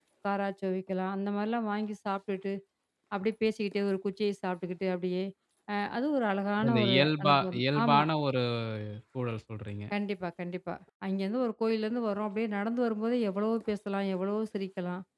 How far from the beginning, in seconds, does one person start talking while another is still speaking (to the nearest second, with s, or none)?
7 s